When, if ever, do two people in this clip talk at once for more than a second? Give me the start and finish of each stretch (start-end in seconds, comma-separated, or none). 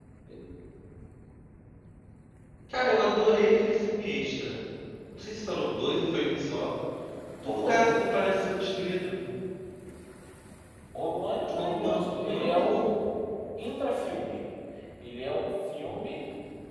11.6-12.8